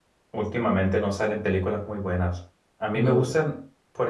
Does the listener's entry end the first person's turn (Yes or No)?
No